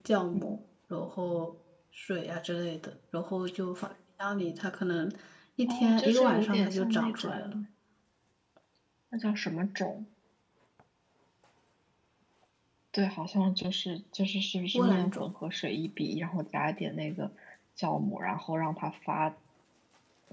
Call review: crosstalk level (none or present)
present